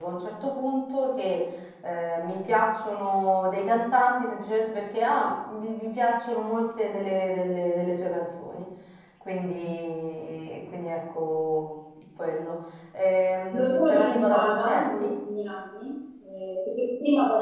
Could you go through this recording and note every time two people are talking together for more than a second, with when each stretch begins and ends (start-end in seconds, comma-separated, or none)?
13.5-15.1